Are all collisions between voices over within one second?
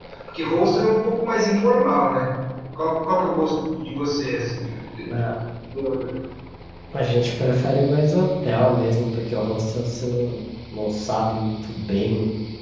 Yes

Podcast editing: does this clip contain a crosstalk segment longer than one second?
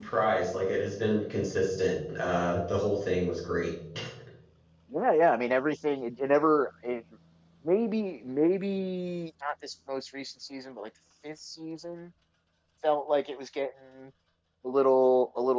No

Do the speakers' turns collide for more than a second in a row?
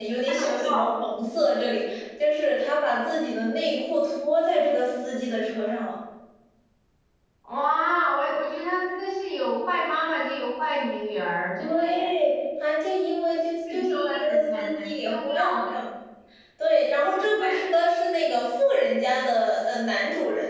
Yes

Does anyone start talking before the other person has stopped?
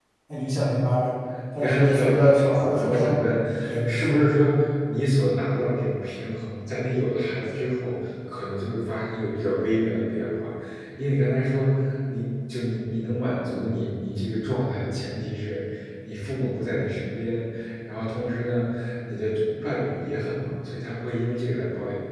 Yes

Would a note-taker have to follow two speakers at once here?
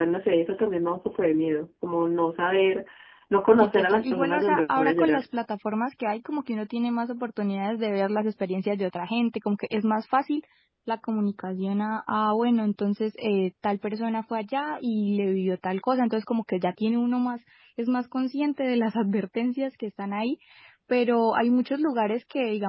Yes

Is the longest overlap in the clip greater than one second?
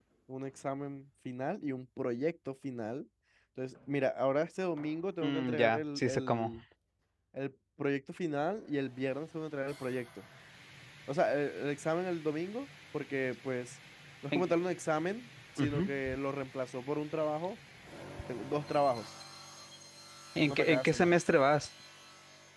Yes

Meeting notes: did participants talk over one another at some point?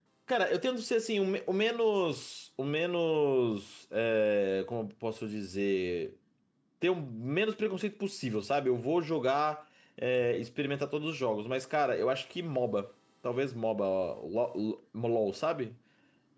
No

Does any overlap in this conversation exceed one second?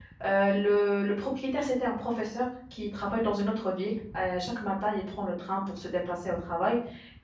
No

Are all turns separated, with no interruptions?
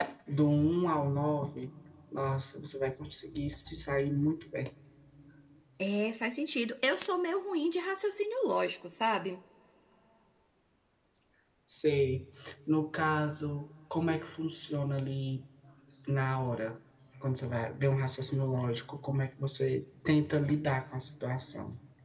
Yes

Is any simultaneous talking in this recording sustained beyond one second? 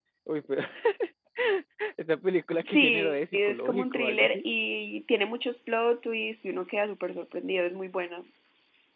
Yes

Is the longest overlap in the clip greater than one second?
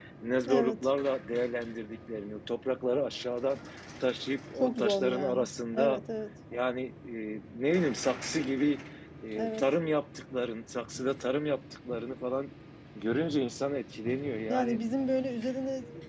Yes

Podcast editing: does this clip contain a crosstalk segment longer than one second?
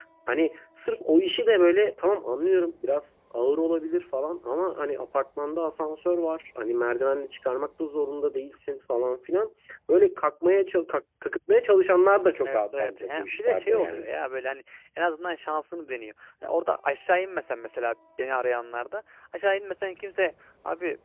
Yes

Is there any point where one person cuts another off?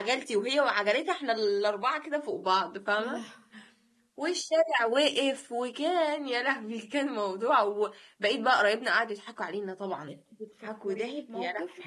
Yes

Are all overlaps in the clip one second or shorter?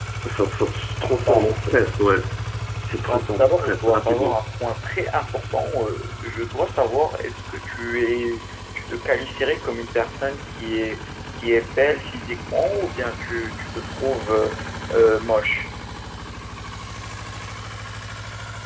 No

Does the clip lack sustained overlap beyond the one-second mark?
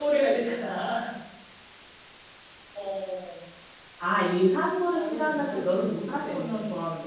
No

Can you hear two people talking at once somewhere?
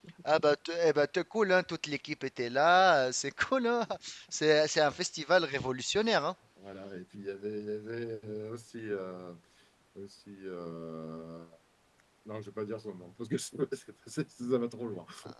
No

